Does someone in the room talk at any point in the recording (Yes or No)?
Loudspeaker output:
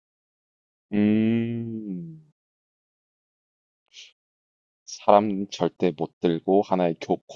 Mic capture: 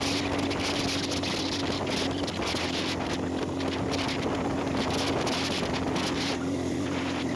No